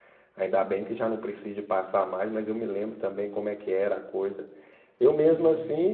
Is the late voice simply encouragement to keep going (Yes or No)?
Yes